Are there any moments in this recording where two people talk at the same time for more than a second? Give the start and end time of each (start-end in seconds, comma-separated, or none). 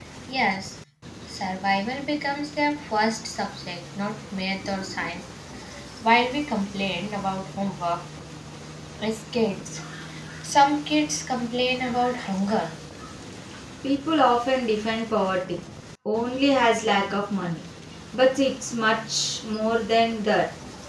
none